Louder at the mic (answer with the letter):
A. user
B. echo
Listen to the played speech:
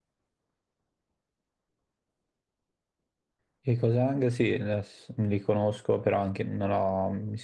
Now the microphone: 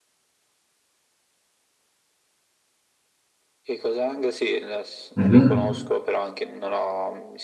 A